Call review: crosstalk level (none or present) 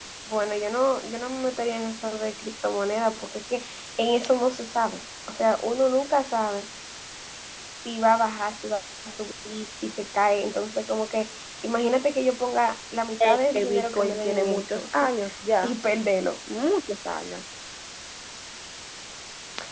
present